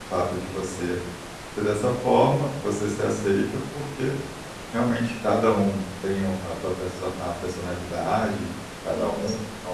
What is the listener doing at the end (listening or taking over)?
listening